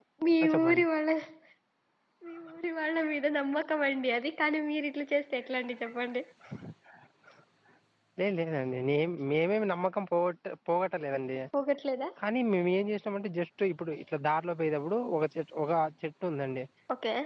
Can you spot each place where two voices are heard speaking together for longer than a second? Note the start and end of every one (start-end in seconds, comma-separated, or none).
none